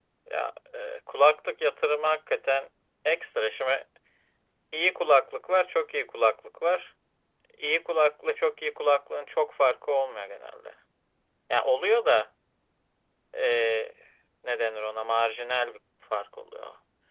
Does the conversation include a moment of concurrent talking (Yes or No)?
No